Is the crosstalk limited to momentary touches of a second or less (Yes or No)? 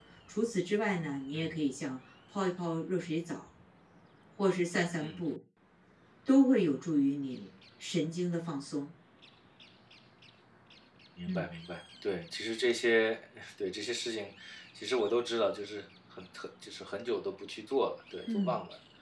Yes